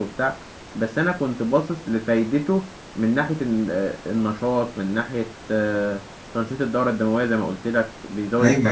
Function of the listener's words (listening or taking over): taking over